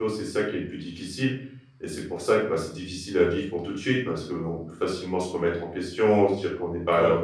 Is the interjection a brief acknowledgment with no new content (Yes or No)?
Yes